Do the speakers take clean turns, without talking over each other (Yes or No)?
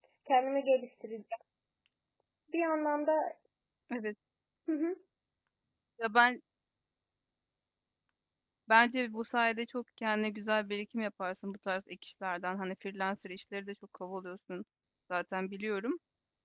Yes